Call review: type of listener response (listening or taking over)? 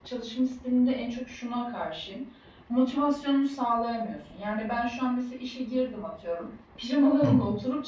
listening